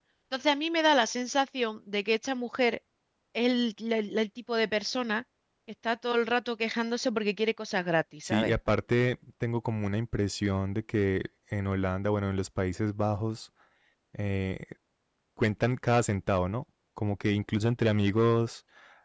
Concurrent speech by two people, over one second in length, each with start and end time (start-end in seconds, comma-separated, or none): none